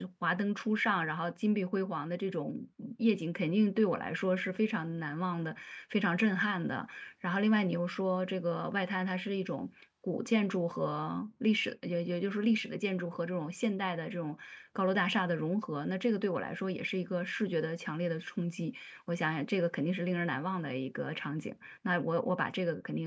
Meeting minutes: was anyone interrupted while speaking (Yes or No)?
No